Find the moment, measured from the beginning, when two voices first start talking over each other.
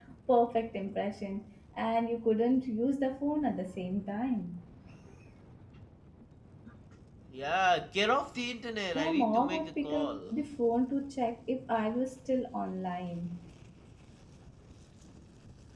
8.9 s

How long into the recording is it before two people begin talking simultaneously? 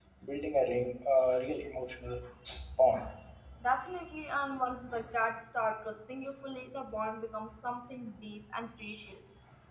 none

